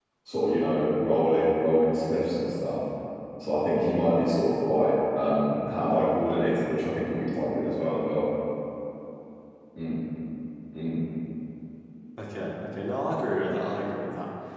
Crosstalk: none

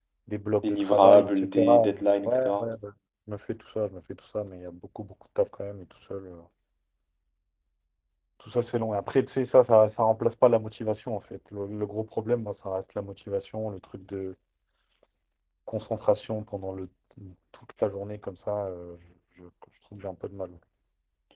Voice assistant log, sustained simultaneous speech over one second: present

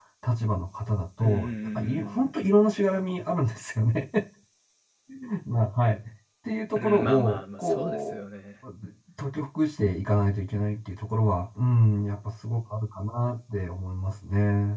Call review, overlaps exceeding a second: present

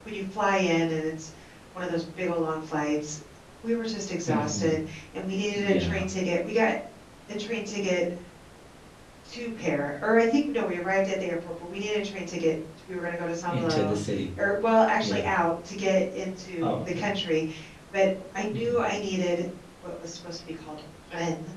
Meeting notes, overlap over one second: none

